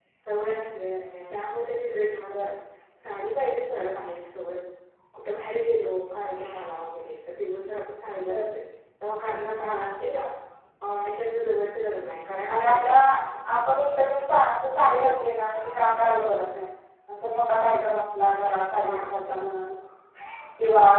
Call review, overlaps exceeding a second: none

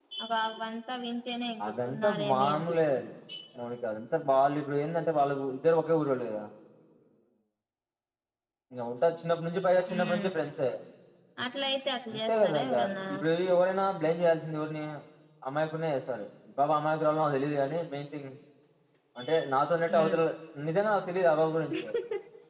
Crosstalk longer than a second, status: present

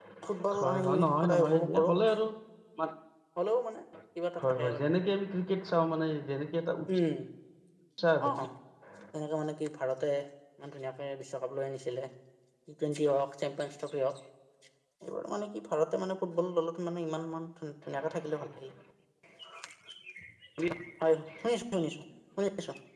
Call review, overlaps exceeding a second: present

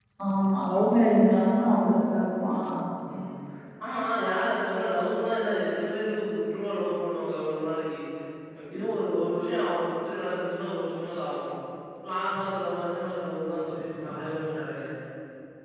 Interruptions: none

